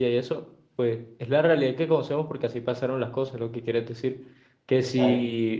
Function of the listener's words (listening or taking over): listening